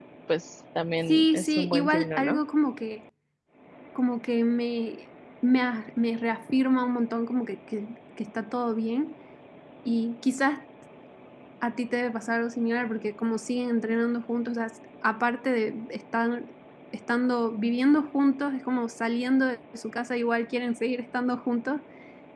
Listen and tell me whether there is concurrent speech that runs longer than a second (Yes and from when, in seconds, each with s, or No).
Yes, from 1.1 s